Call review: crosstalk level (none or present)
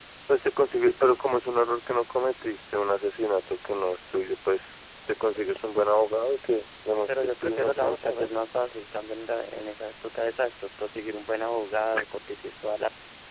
present